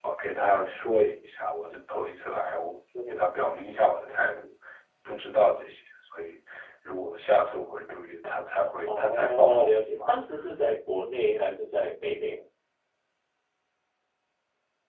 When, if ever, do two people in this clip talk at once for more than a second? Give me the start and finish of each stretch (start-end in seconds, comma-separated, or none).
8.9-10.1